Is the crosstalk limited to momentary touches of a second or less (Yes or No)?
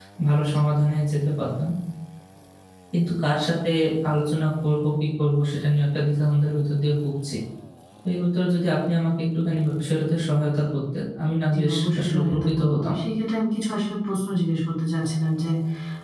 No